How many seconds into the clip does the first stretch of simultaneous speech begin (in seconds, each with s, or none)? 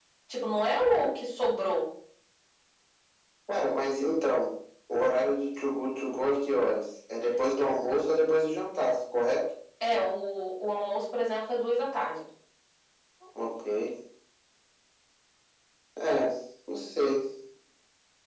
none